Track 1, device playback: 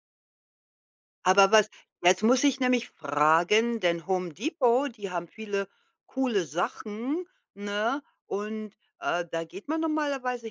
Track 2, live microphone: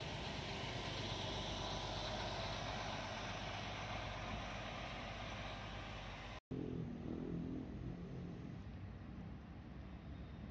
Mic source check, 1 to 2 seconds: neither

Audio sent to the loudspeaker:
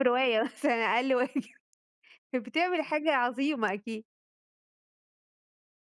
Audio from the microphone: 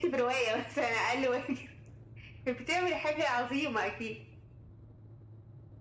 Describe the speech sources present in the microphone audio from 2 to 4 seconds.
echo only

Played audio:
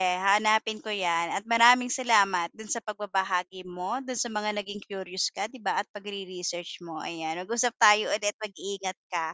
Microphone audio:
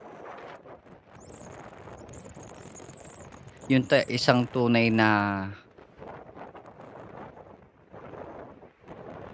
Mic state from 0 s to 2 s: neither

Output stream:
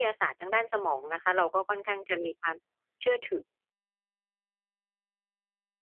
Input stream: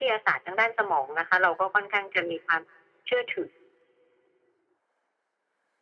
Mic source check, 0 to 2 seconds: echo only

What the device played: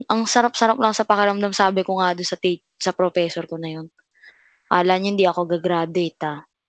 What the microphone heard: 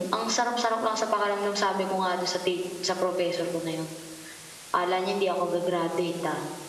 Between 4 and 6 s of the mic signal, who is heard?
echo only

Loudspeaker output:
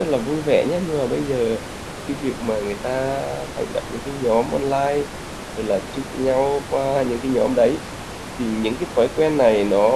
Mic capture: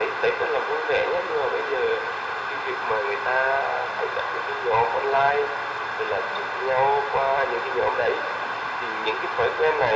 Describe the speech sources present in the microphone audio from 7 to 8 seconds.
echo only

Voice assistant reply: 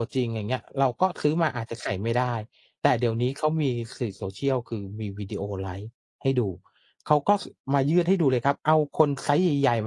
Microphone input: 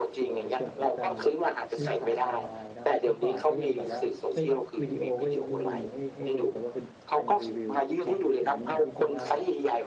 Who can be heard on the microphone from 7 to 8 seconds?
both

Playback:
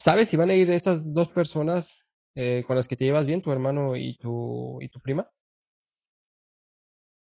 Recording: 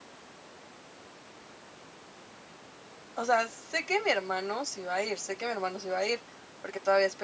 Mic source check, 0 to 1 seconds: neither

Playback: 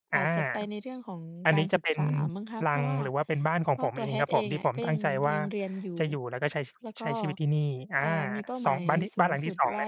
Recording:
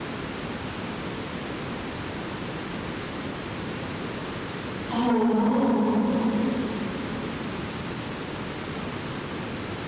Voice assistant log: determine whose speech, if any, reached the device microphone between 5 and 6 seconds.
user only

